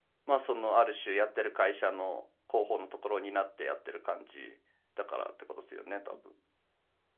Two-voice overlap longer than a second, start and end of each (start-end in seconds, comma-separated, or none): none